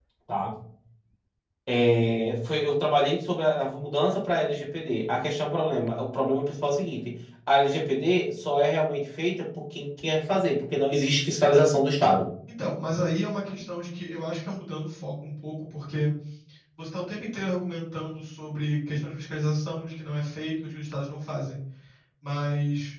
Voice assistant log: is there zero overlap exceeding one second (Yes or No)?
Yes